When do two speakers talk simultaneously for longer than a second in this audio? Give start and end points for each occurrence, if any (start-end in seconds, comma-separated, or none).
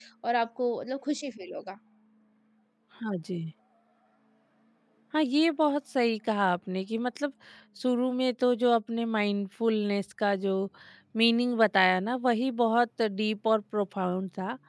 none